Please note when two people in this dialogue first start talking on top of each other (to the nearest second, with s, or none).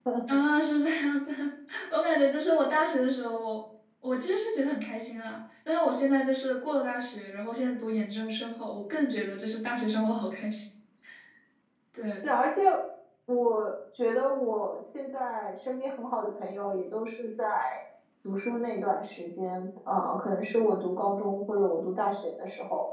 none